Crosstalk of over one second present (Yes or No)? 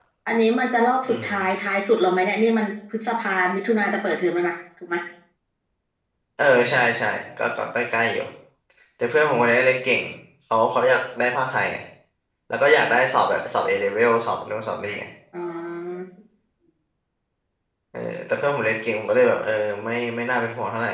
No